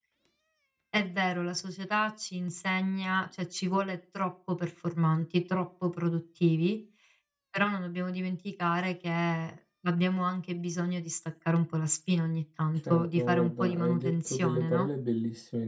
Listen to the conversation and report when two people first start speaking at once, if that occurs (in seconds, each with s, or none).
12.8 s